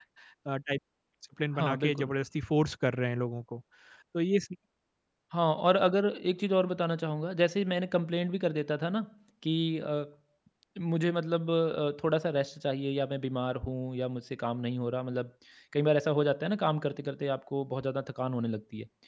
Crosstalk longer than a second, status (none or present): none